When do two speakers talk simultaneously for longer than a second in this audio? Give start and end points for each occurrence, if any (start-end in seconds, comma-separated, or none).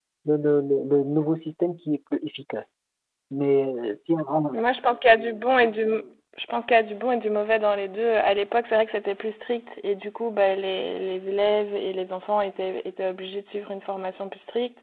none